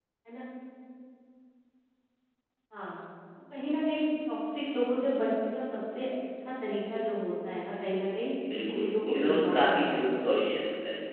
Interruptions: present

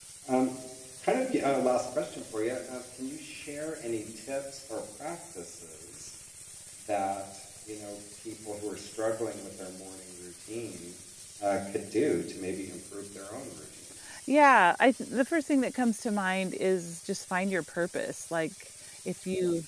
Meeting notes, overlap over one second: none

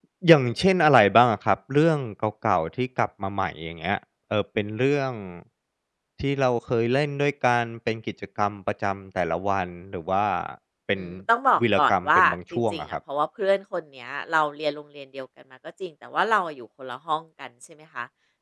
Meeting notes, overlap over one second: present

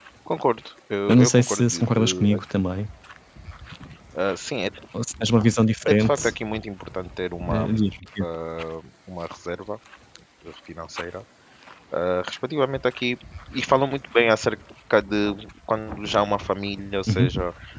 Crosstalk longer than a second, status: present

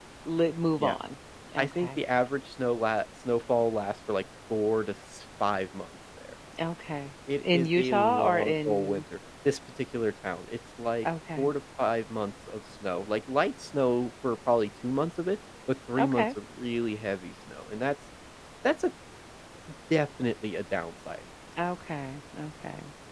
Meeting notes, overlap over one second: present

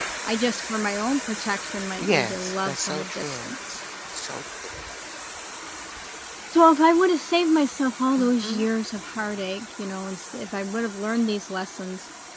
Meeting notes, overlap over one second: present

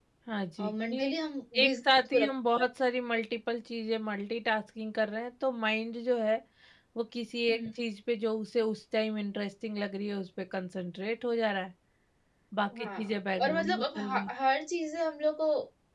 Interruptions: present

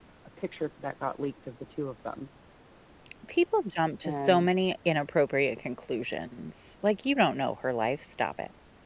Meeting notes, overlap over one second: none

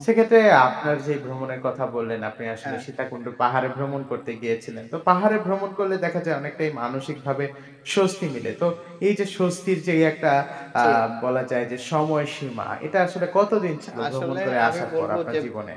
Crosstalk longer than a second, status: present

